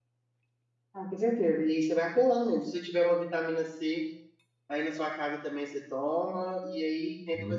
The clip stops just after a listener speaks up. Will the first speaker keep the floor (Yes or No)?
Yes